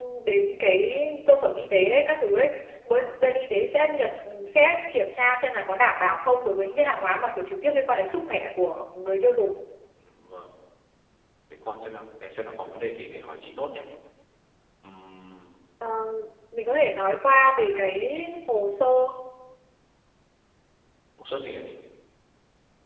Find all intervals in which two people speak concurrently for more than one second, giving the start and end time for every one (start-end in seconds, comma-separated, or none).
none